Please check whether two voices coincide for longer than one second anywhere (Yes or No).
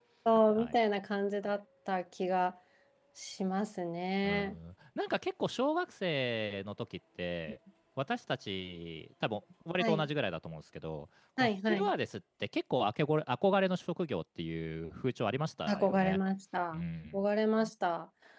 No